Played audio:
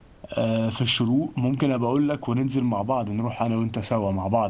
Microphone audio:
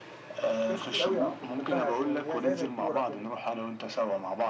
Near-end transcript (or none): ناس كتير قوي بتحبها يعني هي زي زي الكورة كده